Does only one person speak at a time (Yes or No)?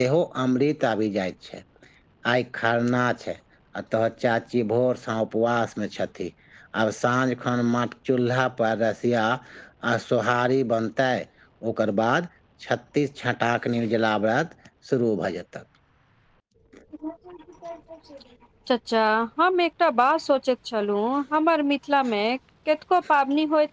Yes